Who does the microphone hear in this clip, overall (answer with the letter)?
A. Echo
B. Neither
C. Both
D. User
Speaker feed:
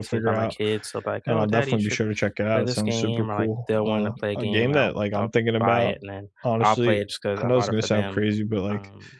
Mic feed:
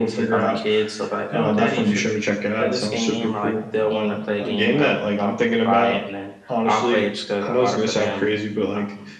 A